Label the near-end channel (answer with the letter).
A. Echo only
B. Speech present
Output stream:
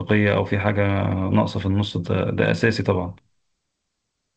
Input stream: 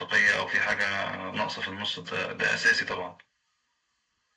A